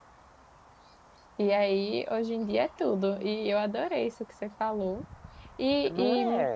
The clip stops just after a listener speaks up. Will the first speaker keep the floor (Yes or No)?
Yes